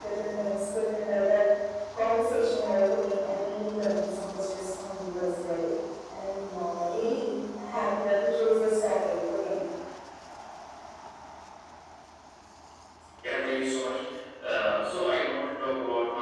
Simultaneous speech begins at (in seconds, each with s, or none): none